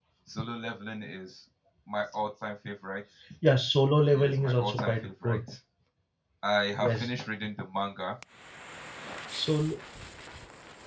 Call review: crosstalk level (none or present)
present